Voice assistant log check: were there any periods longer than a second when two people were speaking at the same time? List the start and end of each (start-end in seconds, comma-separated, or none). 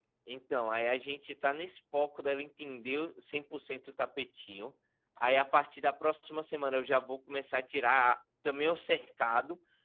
none